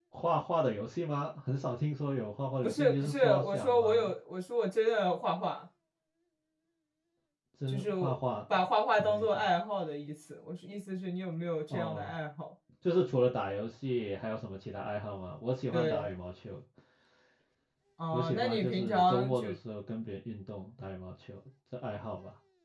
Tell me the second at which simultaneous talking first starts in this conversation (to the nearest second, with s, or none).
3 s